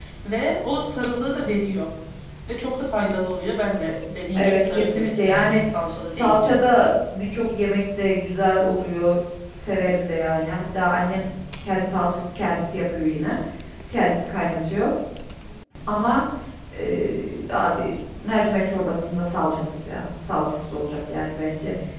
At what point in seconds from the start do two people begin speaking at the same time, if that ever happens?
4 s

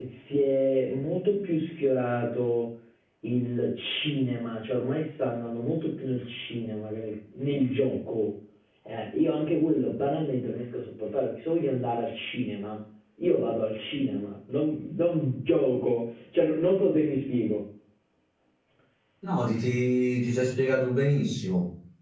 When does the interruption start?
none

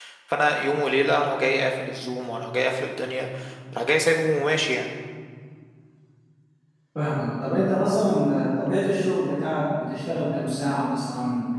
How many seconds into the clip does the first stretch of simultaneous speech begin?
none

